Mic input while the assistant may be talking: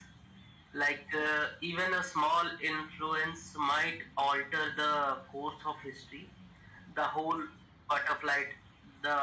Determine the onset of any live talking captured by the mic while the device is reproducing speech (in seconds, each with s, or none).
none